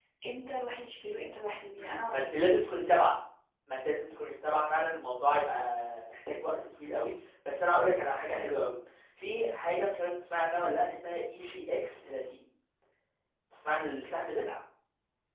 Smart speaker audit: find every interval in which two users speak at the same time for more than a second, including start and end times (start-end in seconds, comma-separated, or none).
none